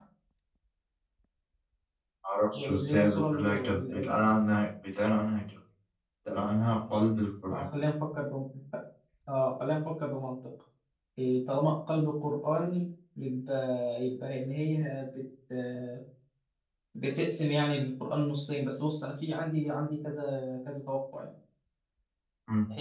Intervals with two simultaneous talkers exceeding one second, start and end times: 2.5-4.1

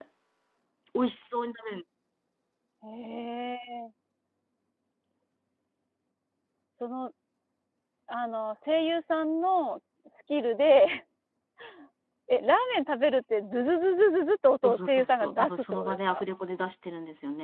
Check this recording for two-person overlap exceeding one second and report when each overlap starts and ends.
14.6-16.2

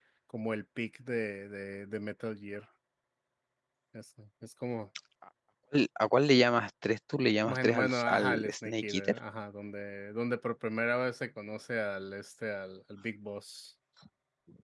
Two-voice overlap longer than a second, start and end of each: 7.5-9.2

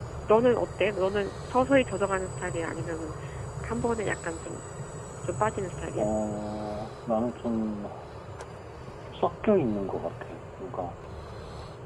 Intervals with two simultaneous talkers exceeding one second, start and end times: none

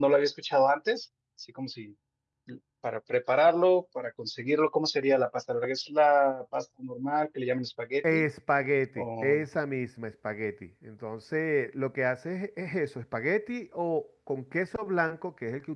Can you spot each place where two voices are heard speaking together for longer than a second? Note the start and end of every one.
none

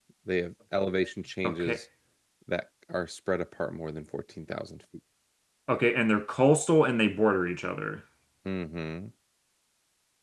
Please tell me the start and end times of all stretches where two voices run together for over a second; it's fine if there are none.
none

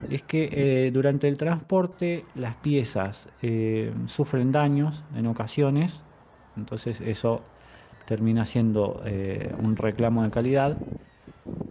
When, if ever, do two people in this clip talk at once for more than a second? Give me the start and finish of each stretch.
none

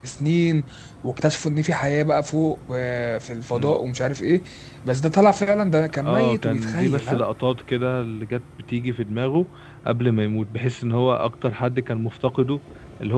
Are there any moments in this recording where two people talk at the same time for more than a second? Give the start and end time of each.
6.0-7.2

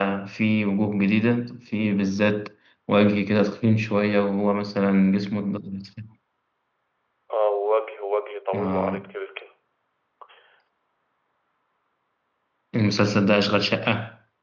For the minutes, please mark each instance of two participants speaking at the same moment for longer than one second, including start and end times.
none

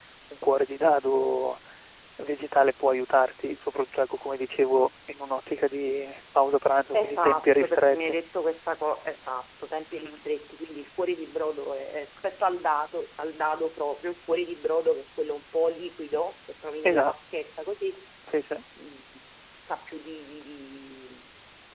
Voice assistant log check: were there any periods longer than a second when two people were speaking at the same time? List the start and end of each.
6.9-8.2

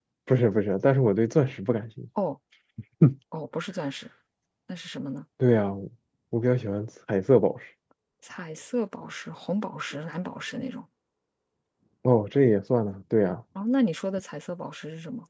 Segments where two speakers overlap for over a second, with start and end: none

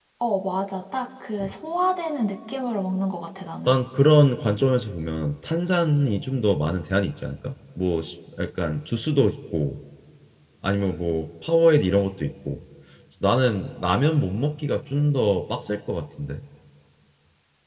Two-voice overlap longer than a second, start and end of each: none

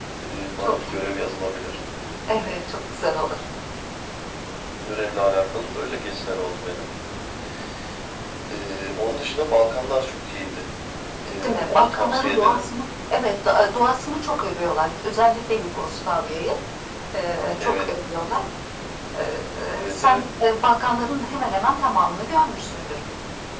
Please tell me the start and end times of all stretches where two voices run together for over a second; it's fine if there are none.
11.3-12.6

